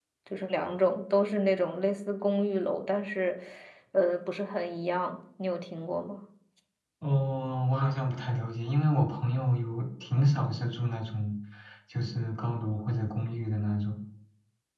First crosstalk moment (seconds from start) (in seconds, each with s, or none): none